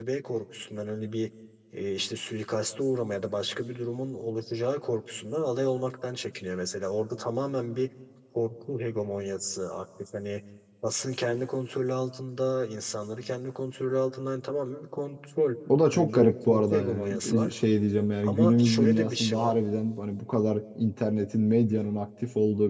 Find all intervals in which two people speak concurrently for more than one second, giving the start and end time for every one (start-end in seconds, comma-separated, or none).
15.9-17.5, 18.2-19.5